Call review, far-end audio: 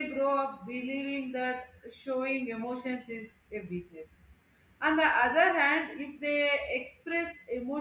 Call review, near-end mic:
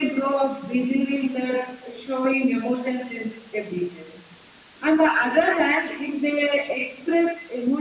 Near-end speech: none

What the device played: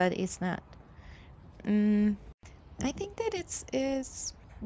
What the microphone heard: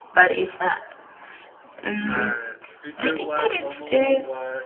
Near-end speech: present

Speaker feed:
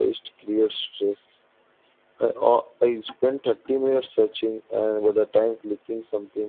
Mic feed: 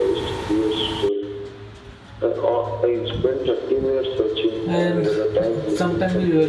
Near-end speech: present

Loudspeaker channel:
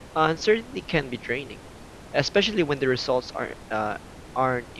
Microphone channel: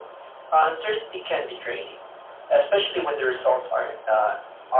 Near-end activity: none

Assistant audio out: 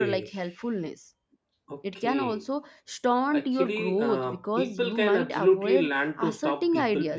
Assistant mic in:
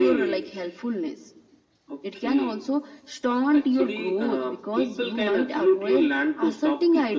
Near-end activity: none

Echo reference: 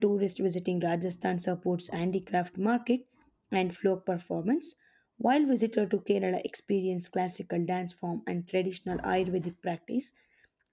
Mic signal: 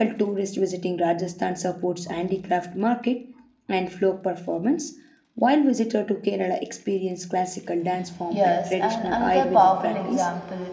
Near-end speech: present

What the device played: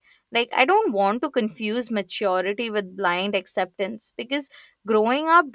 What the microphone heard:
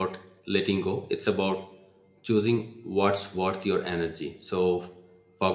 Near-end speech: present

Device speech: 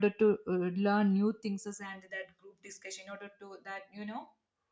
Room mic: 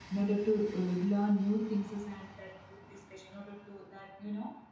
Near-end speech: none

